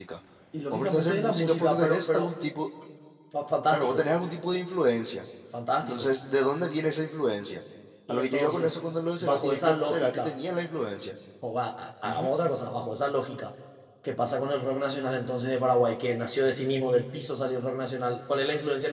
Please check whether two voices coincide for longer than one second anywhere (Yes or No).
Yes